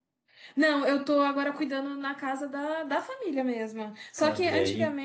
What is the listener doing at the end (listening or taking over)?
listening